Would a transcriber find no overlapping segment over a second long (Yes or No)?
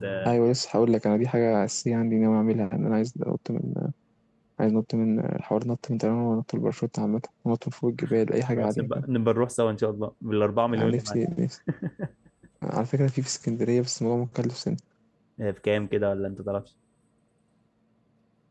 Yes